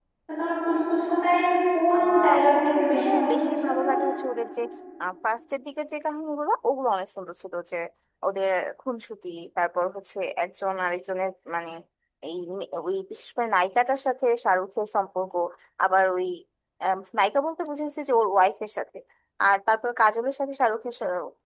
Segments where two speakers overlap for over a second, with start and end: 1.9-4.0

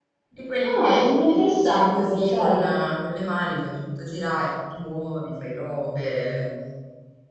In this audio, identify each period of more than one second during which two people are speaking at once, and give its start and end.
0.8-2.7

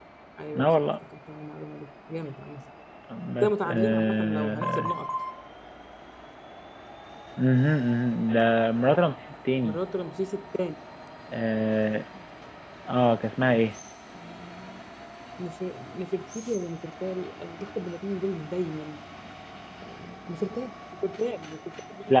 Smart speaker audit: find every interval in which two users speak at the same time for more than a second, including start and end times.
3.4-4.9

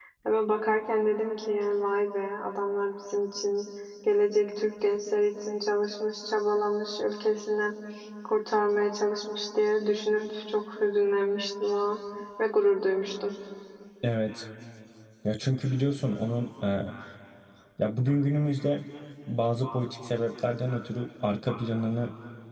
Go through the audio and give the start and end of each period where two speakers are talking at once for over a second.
none

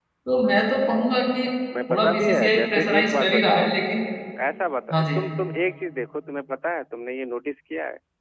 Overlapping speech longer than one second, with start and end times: 1.9-3.7

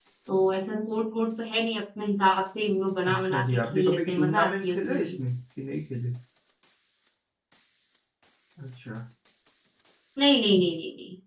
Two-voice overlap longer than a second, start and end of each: 3.0-5.1

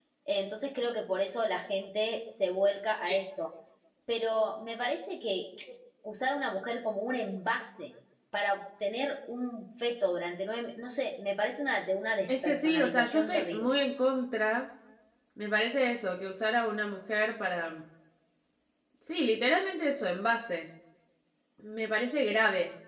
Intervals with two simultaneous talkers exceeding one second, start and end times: 12.4-13.7

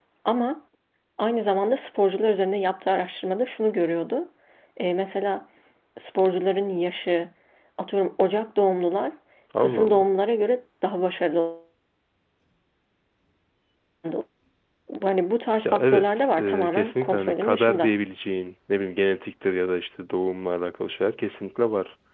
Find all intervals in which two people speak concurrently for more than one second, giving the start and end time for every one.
15.6-17.9

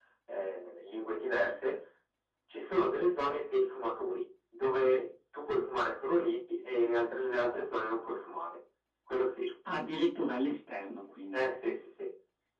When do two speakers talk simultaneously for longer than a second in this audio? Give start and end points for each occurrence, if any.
none

